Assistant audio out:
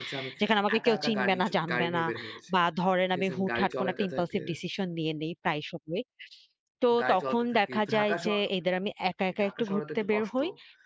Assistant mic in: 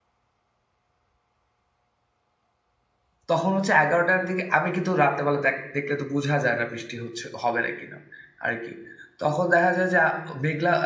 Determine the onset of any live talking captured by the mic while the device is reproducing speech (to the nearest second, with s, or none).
3 s